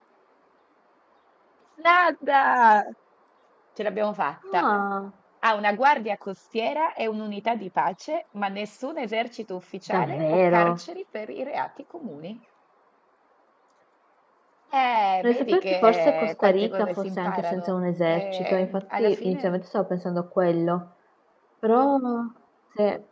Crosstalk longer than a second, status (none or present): present